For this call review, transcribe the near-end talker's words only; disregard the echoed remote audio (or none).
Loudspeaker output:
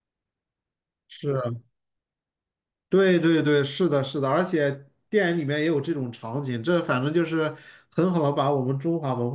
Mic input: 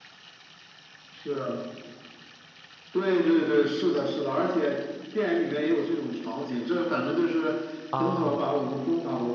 啊